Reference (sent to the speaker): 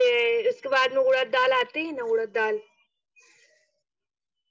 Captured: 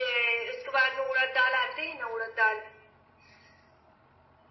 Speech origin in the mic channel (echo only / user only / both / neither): echo only